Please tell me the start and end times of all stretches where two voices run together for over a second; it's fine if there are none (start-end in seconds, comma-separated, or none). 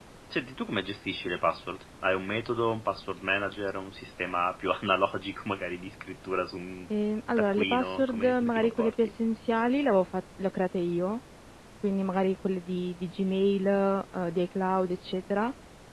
7.4-9.1